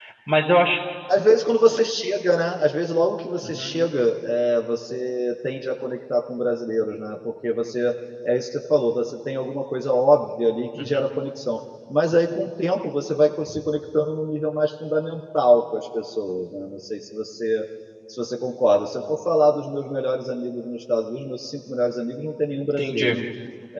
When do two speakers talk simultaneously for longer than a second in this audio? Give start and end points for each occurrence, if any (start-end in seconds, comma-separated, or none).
none